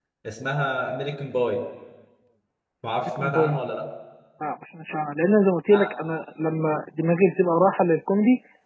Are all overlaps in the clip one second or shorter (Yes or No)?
Yes